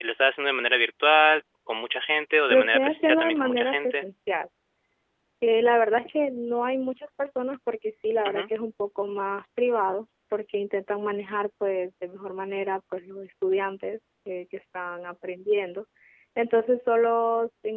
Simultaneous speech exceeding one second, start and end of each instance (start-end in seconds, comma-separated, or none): 2.5-4.0